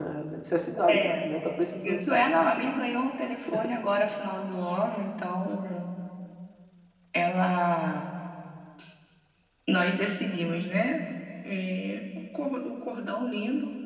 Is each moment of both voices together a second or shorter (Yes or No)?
Yes